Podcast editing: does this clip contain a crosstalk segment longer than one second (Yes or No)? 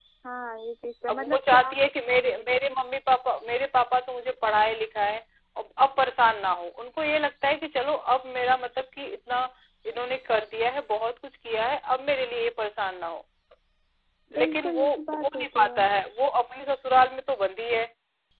Yes